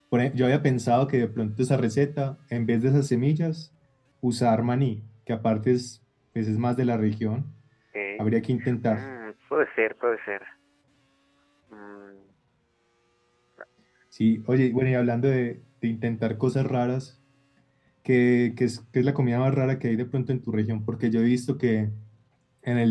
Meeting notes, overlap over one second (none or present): none